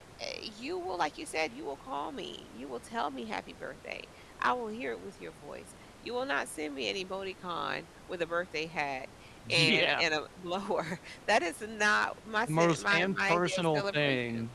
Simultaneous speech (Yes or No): Yes